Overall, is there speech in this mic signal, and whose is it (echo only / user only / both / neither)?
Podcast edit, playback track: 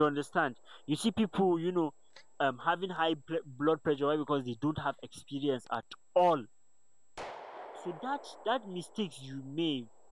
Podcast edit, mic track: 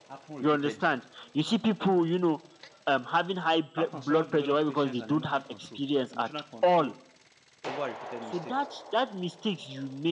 both